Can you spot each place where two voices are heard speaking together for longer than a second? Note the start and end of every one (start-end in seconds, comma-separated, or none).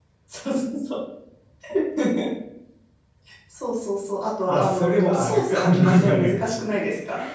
4.5-6.3